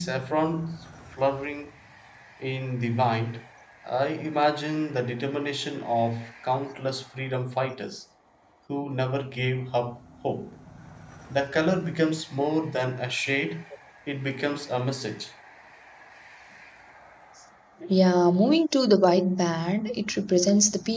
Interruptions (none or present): none